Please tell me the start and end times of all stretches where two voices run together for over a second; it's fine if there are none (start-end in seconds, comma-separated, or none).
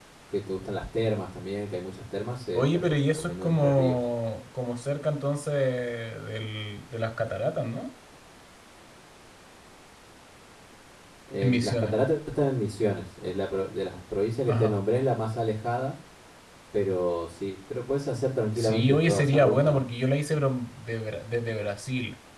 2.5-4.0, 18.6-19.9